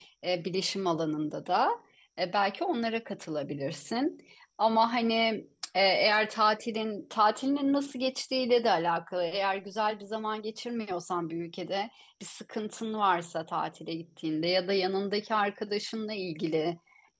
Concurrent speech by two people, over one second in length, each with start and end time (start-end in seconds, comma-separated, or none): none